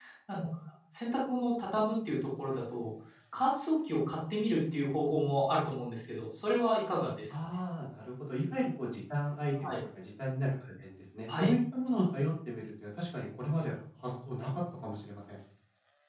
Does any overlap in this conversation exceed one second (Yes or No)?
No